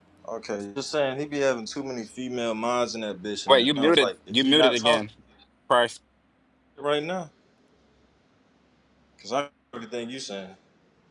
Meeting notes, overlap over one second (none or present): present